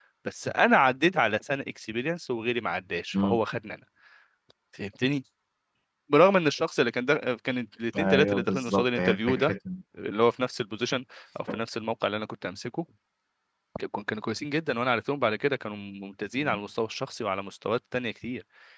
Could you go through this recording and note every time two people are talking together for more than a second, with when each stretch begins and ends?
7.9-9.5

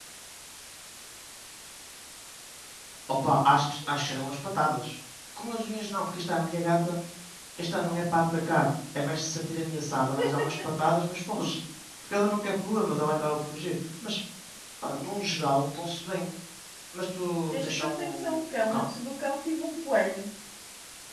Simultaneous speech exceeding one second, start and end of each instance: 17.5-18.9

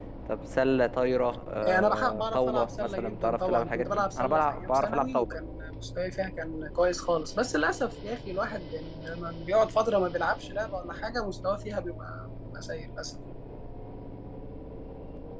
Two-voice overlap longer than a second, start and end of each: 1.6-5.3

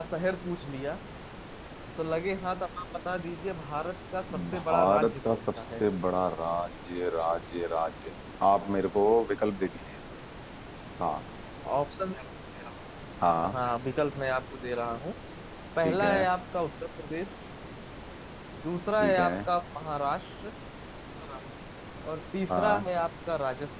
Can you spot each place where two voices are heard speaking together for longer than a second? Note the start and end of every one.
4.5-5.8

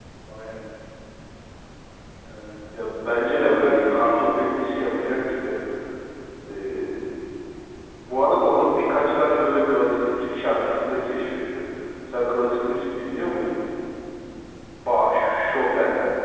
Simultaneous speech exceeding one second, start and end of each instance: 3.2-5.3

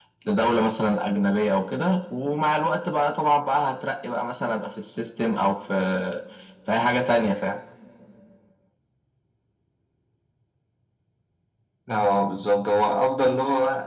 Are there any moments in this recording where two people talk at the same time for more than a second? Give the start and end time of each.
none

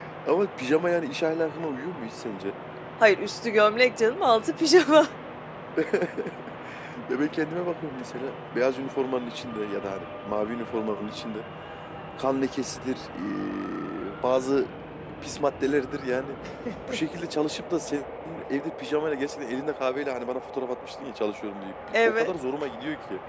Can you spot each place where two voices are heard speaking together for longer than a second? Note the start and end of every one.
none

